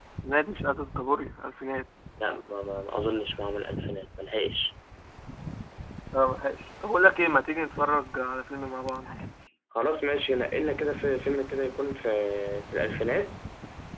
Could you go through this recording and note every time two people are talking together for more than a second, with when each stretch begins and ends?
none

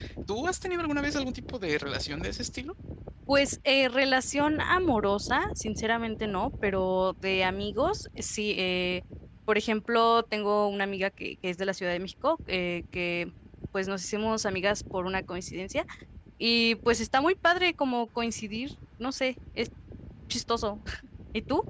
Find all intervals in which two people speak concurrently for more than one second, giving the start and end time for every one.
none

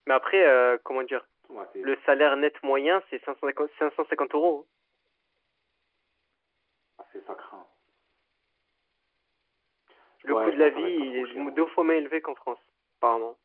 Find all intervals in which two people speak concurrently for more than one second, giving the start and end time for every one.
10.3-11.7

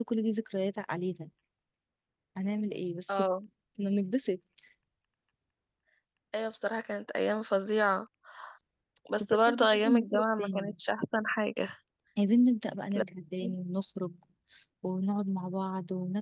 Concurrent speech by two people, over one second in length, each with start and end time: 9.2-10.7

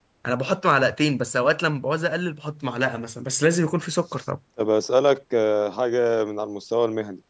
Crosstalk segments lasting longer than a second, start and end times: none

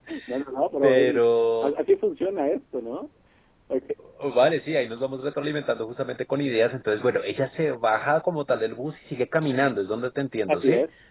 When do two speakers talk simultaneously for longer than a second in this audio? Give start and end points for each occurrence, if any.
none

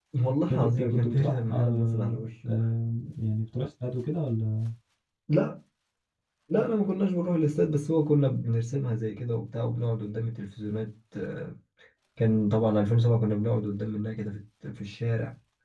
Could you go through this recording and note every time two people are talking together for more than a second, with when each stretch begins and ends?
0.5-2.5

